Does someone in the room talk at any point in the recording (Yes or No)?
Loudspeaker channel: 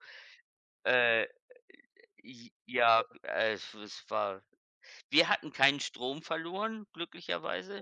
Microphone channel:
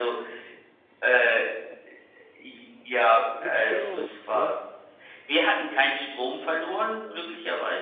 Yes